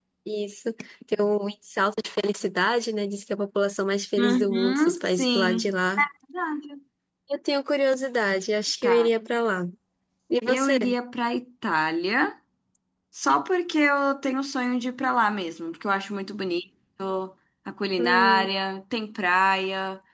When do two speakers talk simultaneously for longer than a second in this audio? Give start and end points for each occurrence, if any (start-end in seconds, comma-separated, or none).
4.2-5.7